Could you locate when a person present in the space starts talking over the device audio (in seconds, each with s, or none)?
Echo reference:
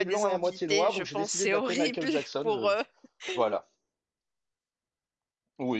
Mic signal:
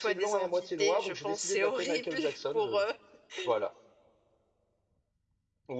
none